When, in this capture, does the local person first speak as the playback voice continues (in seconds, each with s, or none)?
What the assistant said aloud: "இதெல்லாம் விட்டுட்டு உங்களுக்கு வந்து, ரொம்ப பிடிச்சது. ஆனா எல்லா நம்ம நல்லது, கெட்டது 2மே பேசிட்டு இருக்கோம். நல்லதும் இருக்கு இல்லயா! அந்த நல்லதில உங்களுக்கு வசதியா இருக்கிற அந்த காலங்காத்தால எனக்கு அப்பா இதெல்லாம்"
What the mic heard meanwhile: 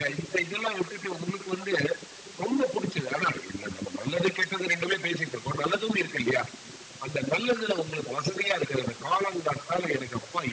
none